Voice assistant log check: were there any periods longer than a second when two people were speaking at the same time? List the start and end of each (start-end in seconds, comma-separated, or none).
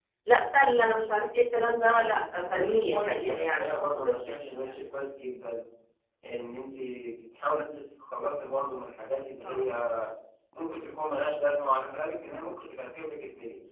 2.4-4.7